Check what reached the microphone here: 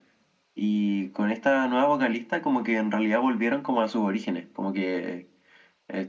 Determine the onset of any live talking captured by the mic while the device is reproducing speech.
none

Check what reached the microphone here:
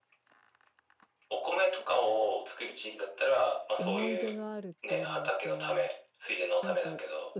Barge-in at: 3.8 s

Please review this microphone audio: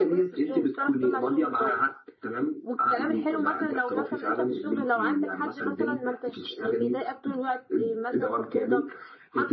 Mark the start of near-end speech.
none

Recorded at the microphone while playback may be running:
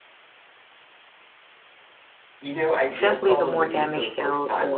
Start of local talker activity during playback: 2.9 s

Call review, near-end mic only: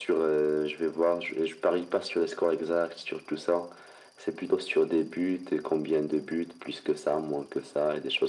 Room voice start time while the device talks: none

